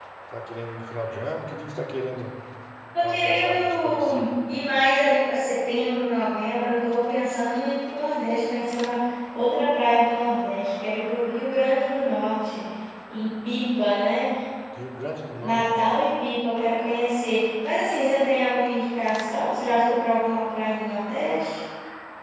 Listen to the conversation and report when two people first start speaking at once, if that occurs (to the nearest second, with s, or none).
3 s